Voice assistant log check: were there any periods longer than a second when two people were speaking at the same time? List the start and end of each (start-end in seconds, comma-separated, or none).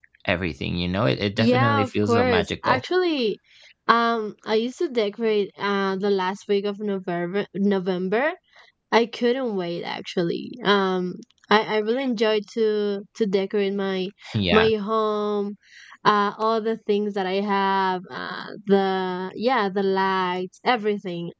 1.4-2.8